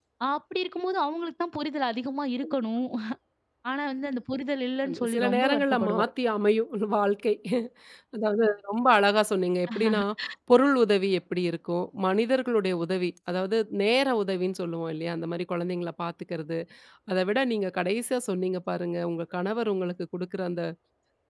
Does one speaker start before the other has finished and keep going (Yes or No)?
Yes